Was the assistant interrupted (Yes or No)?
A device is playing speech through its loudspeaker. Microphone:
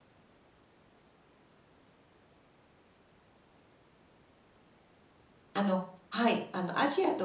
Yes